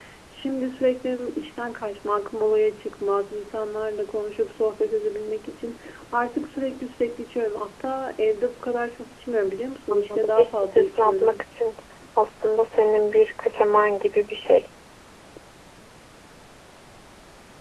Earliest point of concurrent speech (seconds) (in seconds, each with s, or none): 9.9 s